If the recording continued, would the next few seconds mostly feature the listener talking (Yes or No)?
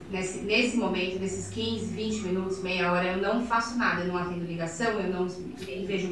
No